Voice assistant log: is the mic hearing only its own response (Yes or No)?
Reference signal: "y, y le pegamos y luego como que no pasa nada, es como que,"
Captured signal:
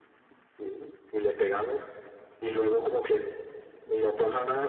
Yes